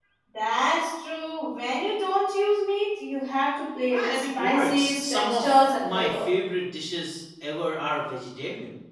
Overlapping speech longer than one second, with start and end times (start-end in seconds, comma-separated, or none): 3.9-6.3